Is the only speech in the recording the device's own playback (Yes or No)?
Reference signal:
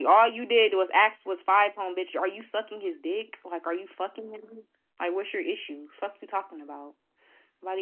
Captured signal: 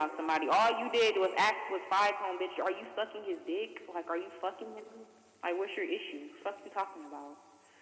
Yes